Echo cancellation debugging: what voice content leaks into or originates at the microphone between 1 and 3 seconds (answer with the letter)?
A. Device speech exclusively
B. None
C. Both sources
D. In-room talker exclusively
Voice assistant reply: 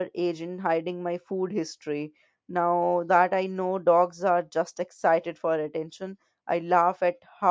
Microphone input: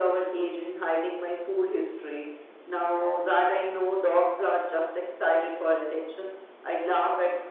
A